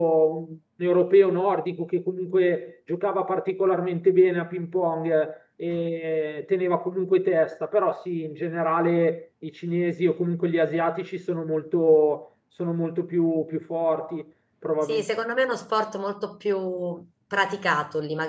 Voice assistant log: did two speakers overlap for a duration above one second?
No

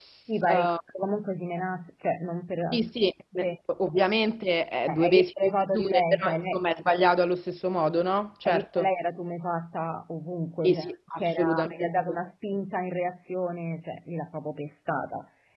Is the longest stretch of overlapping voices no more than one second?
No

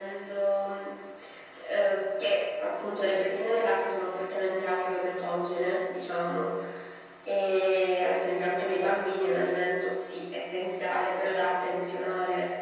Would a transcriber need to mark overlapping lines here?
No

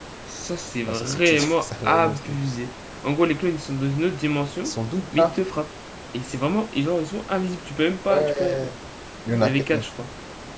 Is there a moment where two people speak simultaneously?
Yes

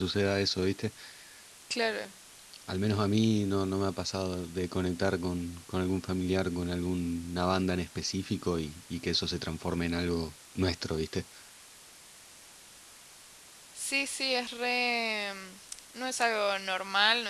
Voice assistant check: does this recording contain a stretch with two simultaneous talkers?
No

